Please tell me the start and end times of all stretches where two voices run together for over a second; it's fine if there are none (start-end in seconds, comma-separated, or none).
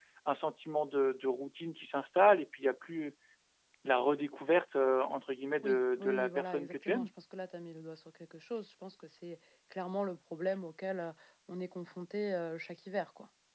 5.6-7.1